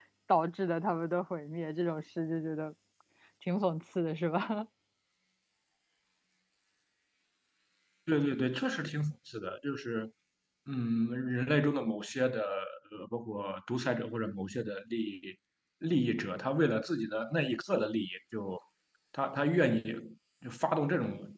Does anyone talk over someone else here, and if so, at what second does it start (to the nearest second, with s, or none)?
none